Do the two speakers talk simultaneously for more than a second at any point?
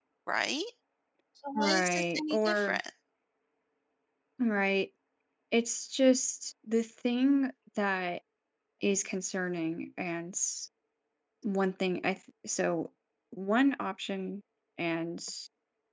Yes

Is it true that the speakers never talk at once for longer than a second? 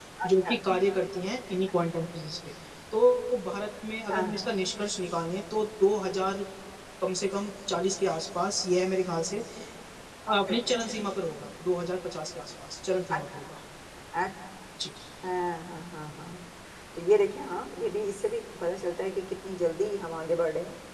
Yes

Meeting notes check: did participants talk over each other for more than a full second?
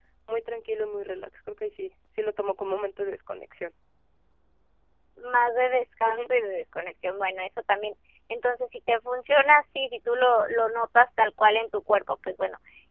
No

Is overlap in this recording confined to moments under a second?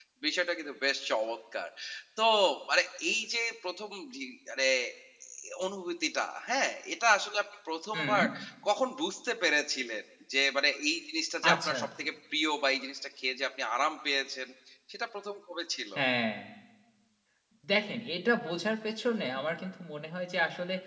Yes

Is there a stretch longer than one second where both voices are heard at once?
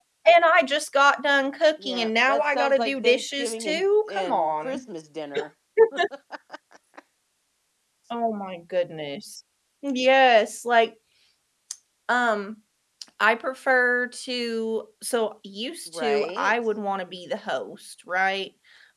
Yes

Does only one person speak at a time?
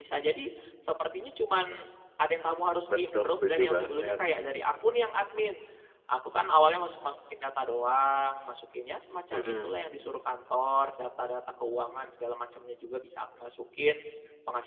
No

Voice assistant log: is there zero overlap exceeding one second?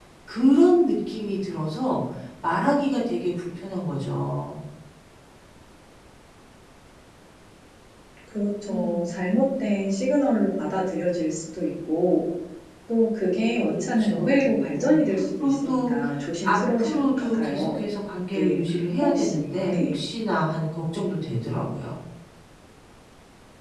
No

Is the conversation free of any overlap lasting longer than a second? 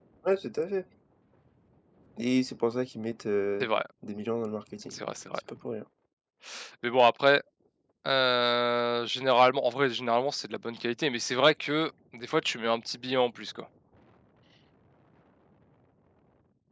Yes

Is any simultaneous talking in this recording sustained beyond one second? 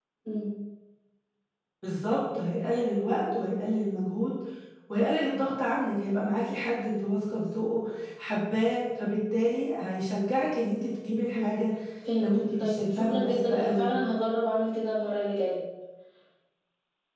Yes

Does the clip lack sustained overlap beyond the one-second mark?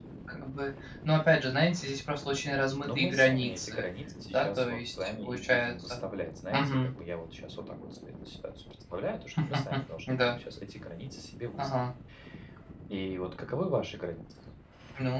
No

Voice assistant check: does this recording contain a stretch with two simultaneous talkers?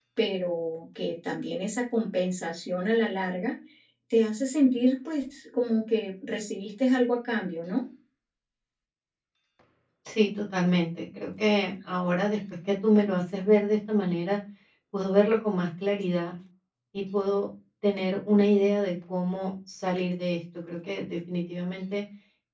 No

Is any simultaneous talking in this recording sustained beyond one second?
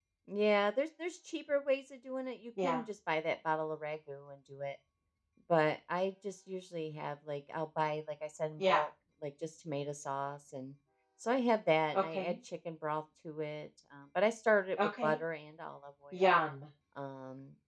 No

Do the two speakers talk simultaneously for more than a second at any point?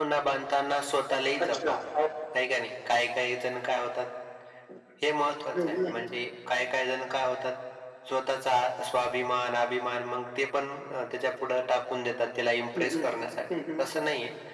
No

